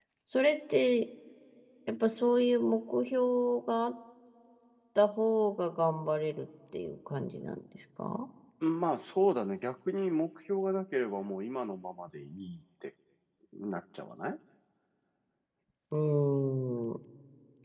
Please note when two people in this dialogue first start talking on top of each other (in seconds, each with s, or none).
none